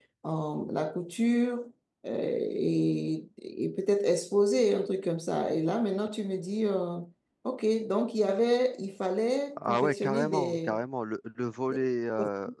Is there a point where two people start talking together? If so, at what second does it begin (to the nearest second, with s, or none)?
10 s